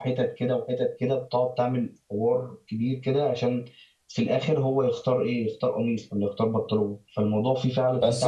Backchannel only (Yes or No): No